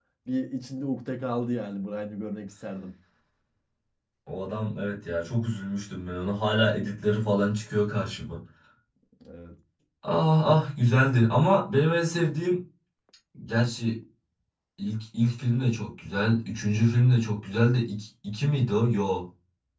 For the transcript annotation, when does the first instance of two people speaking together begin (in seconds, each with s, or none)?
none